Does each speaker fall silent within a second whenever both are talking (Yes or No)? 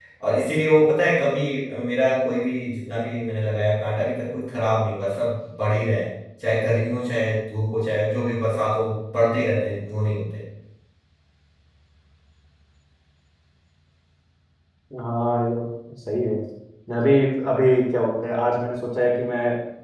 Yes